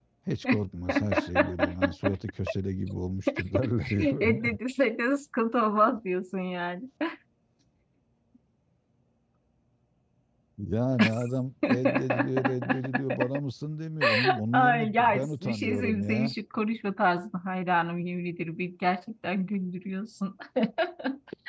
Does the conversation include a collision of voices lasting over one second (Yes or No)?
Yes